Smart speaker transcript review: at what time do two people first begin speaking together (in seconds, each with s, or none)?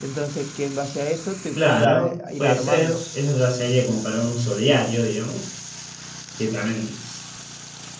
1.6 s